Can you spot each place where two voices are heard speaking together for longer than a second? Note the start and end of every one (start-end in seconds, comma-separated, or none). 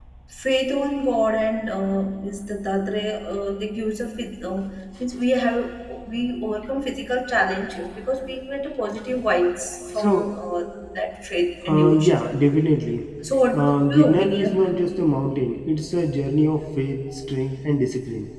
13.5-14.8